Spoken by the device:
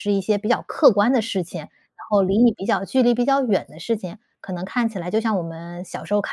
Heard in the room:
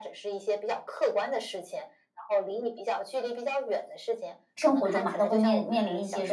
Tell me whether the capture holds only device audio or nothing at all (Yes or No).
No